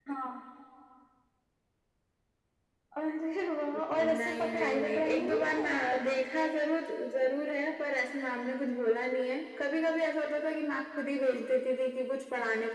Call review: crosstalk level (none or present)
present